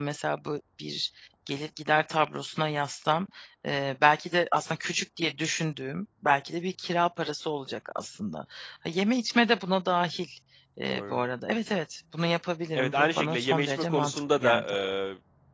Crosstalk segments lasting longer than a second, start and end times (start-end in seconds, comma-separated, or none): 12.8-14.7